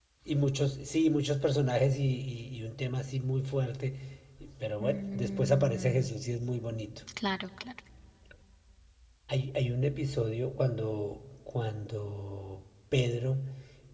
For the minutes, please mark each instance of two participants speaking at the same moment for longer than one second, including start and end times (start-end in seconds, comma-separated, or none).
4.8-6.1